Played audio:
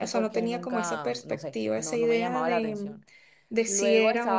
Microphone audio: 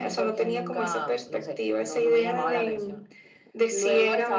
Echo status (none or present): present